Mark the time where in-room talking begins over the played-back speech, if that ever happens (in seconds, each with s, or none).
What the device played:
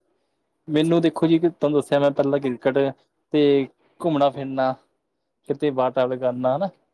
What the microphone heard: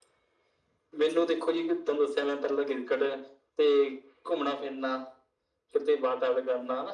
none